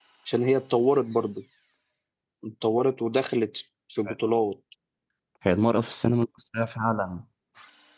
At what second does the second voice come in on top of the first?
none

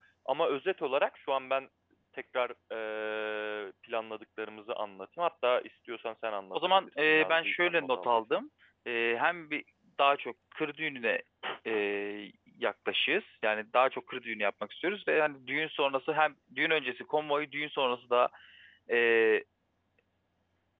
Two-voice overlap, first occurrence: 7 s

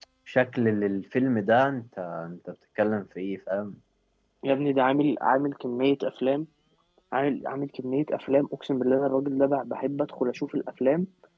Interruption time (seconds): none

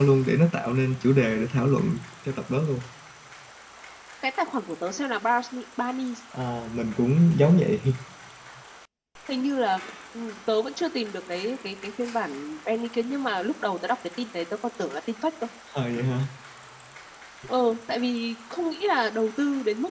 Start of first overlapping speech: none

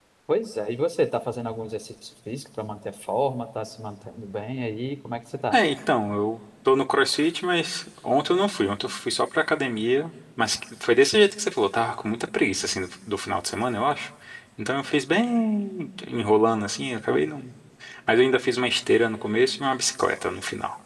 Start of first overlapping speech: none

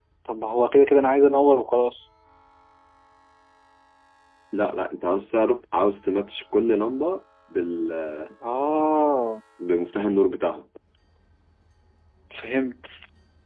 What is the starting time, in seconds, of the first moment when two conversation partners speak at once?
none

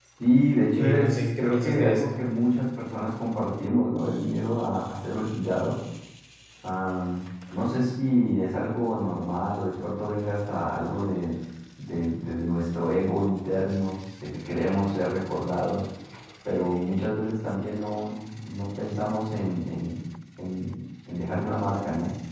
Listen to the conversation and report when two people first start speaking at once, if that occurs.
1 s

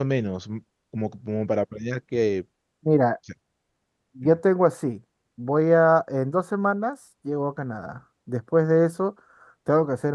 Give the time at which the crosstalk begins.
none

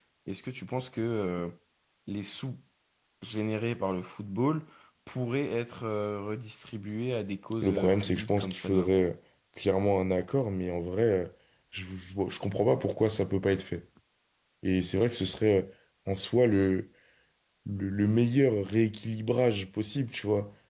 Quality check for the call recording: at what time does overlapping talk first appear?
8 s

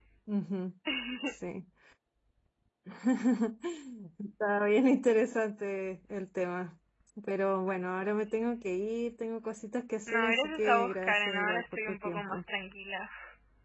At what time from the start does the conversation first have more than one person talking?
10 s

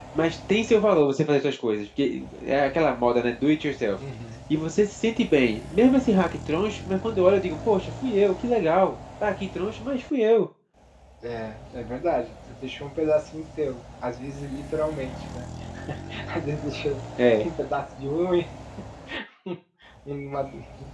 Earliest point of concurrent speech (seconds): none

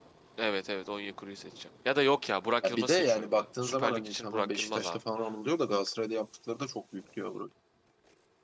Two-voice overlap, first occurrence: 3 s

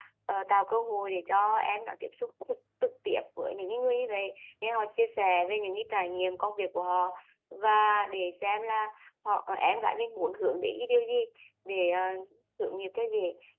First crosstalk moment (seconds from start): none

